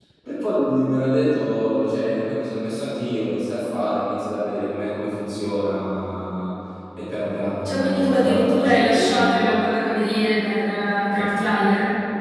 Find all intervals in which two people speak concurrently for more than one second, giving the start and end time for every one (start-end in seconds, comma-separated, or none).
7.6-9.3